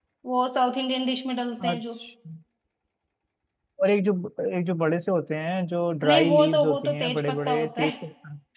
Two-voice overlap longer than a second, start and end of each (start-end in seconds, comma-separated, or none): 6.0-8.0